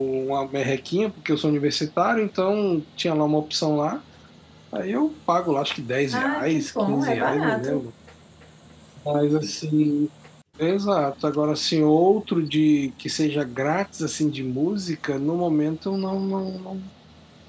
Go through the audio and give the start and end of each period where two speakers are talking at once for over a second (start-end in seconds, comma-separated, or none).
6.1-7.8